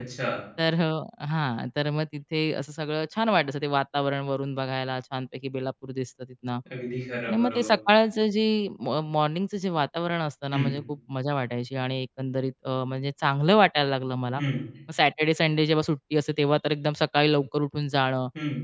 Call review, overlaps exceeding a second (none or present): none